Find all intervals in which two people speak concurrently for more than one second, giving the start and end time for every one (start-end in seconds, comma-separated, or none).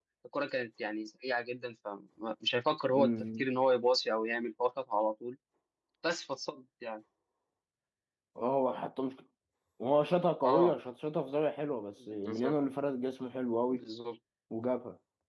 none